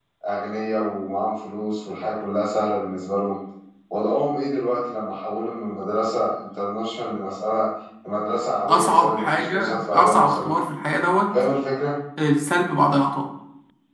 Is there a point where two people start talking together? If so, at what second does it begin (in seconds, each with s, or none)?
8.6 s